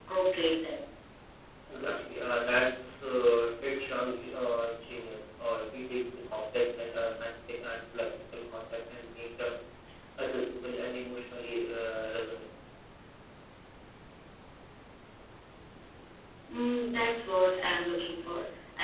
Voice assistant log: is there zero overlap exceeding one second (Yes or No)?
Yes